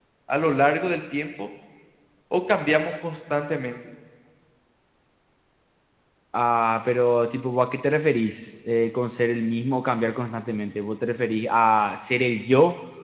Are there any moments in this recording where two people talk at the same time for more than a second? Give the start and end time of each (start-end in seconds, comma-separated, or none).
none